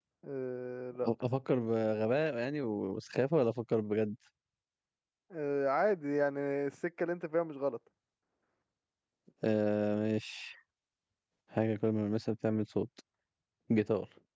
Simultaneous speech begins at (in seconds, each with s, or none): none